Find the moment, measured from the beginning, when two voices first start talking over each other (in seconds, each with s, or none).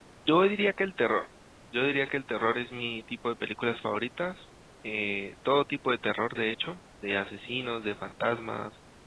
none